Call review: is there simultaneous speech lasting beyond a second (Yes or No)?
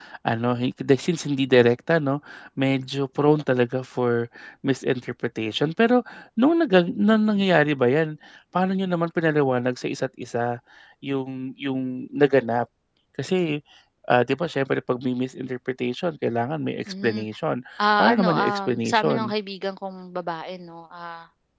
Yes